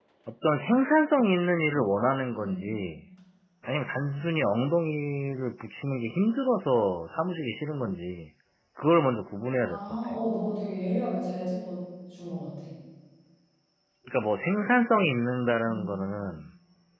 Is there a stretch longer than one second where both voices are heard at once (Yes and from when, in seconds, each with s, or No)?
No